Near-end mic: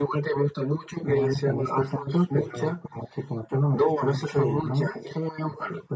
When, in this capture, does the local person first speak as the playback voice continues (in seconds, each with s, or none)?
none